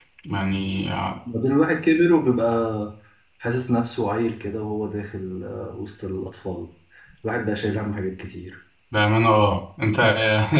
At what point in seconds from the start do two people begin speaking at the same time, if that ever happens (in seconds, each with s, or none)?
none